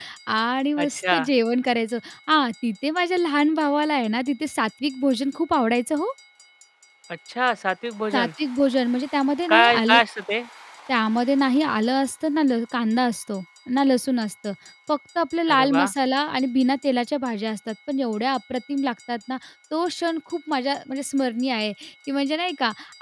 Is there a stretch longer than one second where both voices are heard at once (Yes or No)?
No